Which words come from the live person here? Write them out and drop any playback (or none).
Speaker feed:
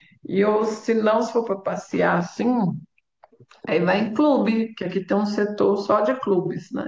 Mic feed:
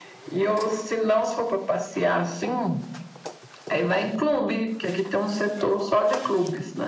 none